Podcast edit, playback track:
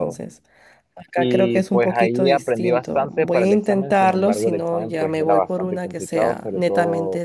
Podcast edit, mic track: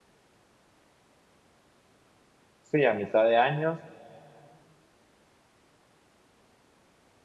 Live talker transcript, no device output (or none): sí, a mitad de año